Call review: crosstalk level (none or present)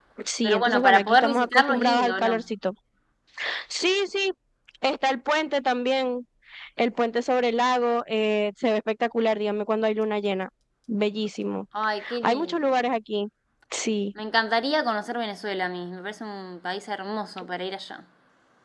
present